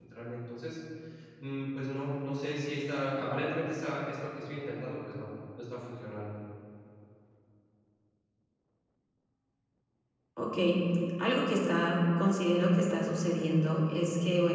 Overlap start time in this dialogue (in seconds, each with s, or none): none